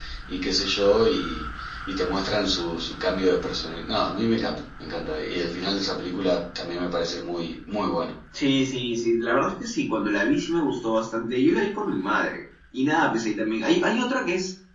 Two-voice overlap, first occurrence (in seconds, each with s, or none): none